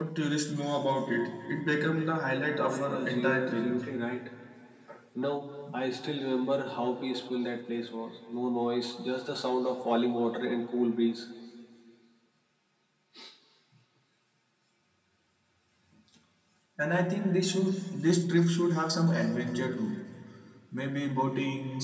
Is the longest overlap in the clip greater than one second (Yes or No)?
Yes